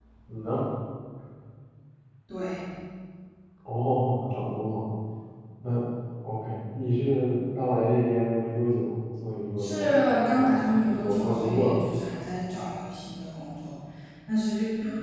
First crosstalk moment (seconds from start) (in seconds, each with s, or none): 9.6 s